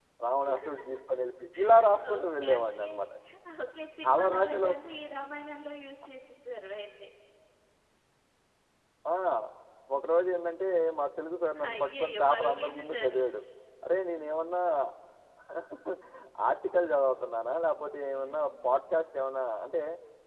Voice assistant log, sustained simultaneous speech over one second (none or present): present